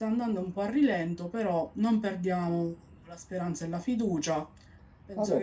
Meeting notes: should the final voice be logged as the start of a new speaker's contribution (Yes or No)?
Yes